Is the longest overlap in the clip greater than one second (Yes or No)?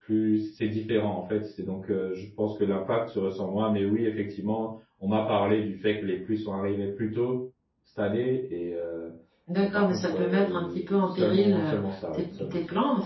Yes